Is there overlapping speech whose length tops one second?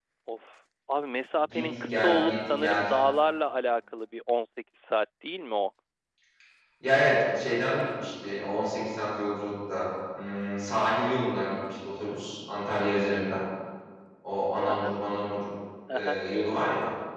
Yes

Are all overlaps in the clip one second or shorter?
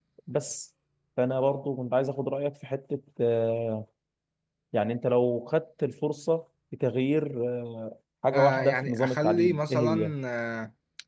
No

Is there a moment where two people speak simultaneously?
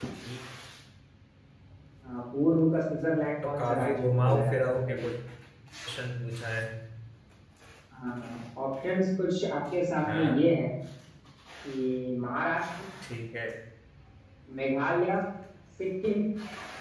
Yes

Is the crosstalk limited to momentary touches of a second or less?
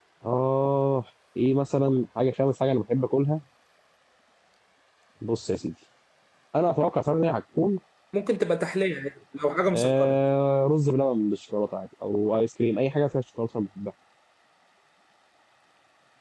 Yes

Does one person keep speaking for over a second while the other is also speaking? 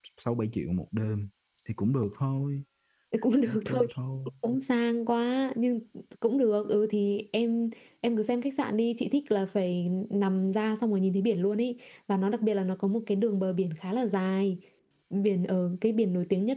No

